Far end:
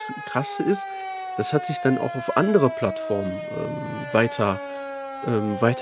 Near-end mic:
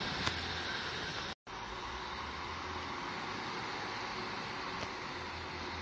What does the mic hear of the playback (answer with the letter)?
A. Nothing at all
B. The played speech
A